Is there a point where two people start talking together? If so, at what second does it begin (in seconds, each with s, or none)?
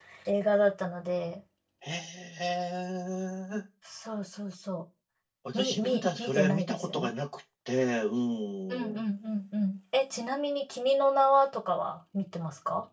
5.6 s